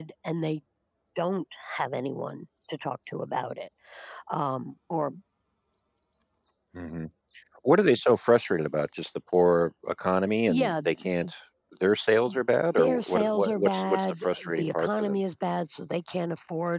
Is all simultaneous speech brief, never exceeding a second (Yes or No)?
No